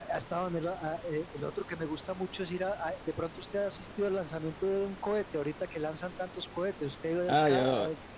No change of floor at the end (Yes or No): No